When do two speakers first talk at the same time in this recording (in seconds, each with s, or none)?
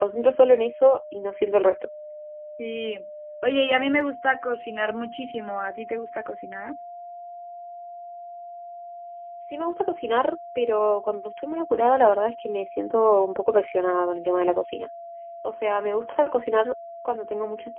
none